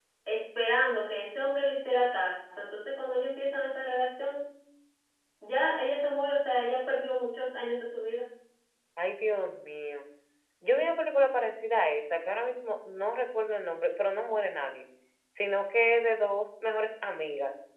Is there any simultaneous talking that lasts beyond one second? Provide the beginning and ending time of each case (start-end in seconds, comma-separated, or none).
none